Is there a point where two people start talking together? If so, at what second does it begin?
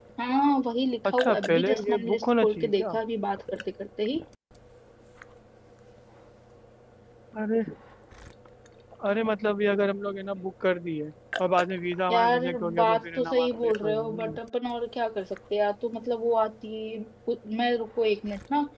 1.1 s

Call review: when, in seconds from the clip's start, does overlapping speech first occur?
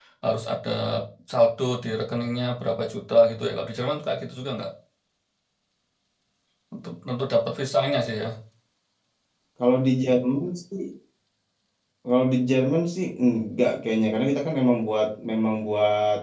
none

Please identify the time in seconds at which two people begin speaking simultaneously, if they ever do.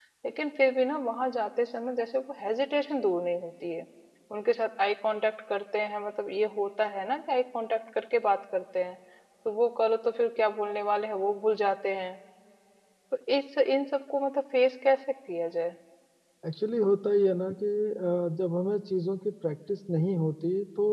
none

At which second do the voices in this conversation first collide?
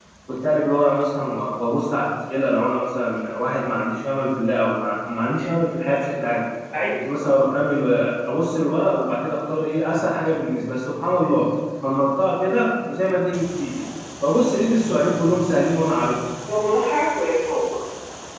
none

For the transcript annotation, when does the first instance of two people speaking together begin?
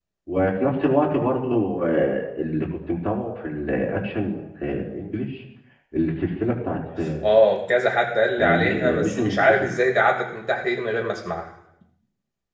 8.4 s

